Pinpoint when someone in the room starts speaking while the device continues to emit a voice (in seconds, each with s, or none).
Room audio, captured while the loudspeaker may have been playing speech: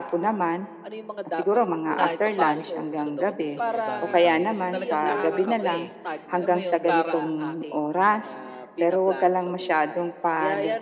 1.9 s